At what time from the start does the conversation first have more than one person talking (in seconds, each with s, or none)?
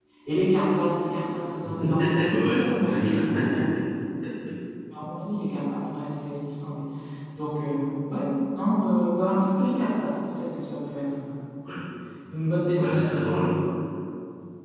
1.9 s